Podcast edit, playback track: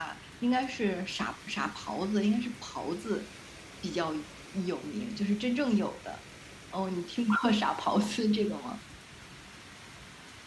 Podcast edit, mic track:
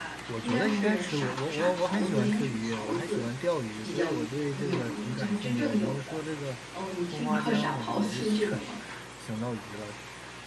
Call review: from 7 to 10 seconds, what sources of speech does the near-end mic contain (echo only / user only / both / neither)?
both